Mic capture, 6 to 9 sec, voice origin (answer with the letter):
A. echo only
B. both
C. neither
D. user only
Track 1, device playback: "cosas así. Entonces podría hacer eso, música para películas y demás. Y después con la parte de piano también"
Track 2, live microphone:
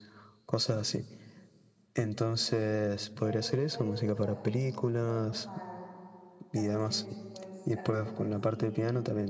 B